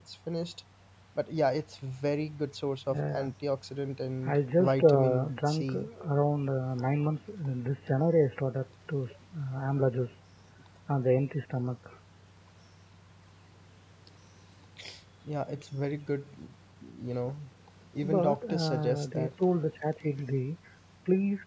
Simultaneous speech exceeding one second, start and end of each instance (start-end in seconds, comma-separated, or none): 4.2-5.9, 18.0-19.3